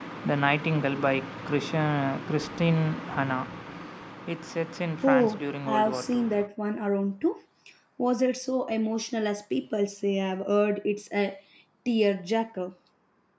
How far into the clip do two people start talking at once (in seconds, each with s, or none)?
5.0 s